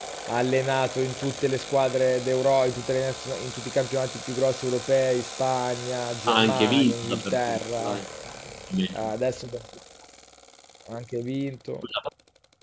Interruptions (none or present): present